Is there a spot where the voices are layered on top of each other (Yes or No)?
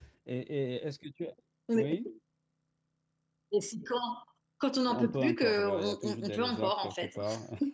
Yes